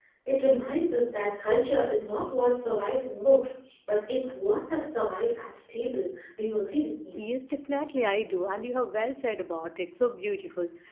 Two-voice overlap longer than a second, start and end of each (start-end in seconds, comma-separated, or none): none